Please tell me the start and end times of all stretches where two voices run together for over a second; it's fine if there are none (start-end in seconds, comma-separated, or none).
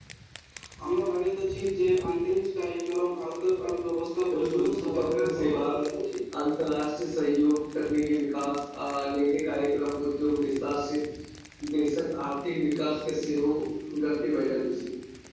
4.3-5.6